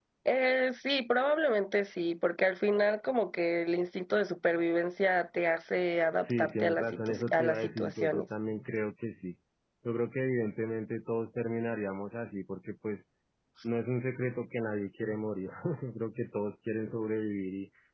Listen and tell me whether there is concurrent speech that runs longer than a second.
Yes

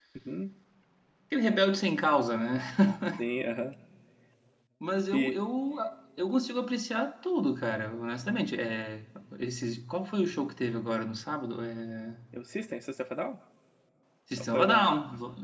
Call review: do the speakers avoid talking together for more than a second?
Yes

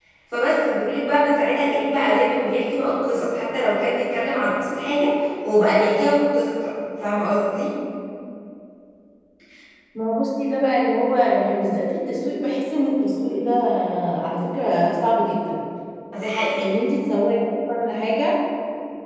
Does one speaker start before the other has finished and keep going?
No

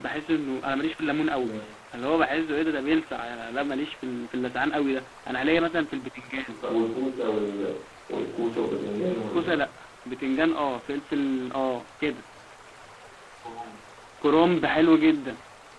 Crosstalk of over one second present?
No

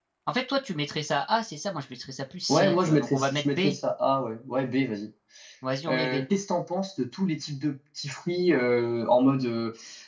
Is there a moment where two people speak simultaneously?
Yes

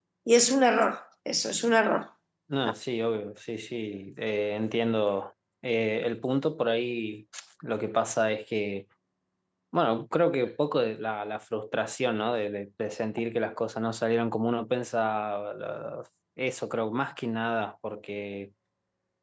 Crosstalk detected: No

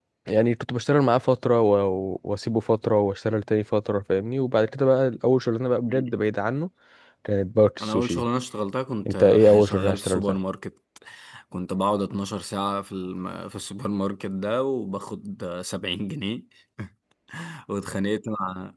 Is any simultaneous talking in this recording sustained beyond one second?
Yes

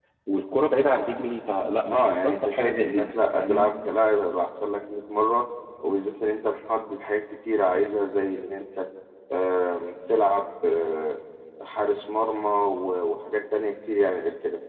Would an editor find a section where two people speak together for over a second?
Yes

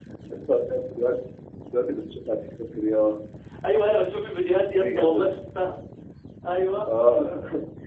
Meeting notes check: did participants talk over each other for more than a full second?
No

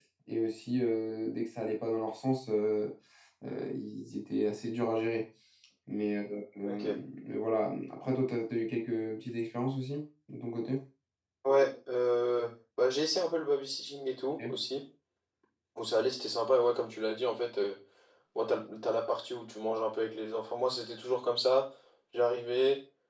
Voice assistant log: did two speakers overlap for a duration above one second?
No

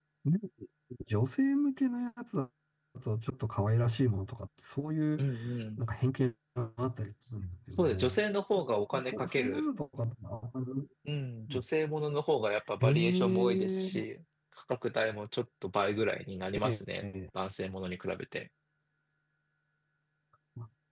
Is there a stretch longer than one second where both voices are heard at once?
Yes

